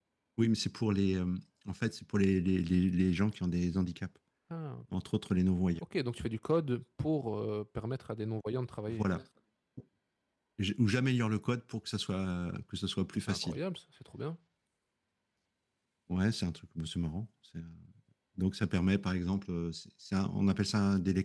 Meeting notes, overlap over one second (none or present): none